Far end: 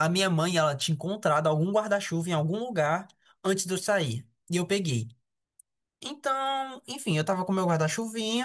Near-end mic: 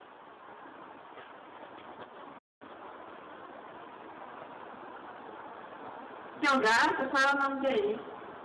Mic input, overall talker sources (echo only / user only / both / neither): user only